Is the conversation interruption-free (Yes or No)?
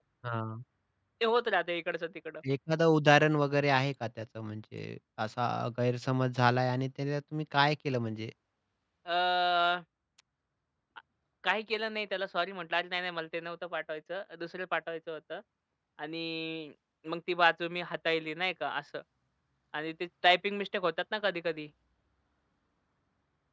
Yes